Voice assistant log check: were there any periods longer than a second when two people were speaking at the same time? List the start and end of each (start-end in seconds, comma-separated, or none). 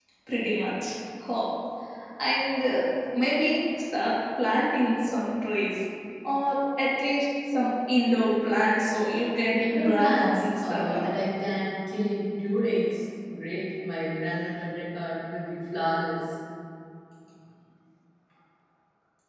9.6-11.1